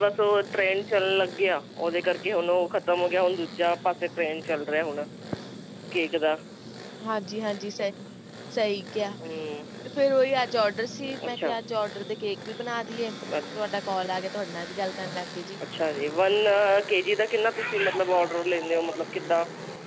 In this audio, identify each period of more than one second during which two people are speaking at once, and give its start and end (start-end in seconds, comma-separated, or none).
none